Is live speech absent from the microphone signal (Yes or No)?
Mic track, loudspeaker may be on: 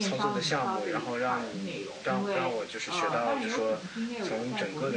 No